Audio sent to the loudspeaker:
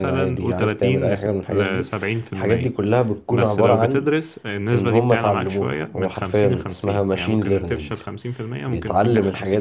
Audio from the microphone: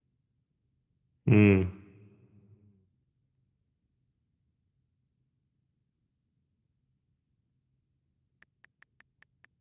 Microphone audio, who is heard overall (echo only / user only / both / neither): user only